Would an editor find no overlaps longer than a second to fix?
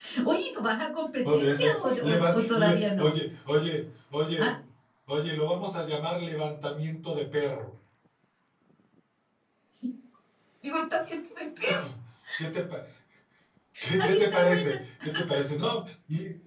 No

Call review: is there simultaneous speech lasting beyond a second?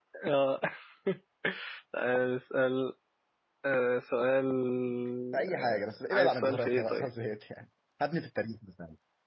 Yes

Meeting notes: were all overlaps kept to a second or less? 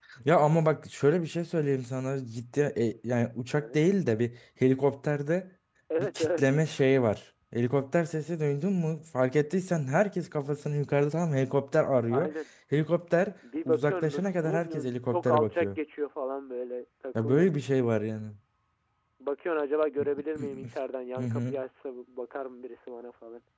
No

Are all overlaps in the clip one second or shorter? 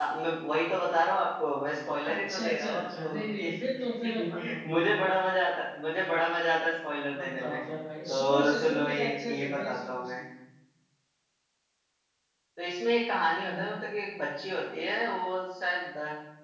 No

